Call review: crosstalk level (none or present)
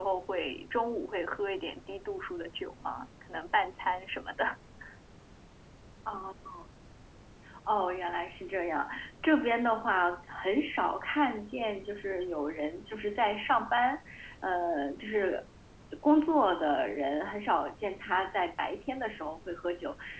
none